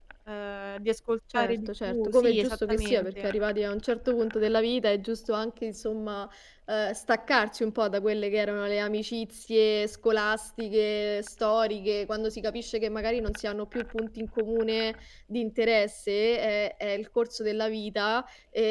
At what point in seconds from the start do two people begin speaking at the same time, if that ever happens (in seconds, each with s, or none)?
1.3 s